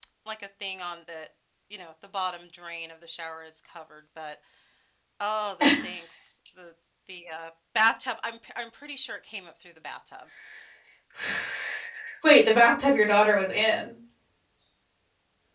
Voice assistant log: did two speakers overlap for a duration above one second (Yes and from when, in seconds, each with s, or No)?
No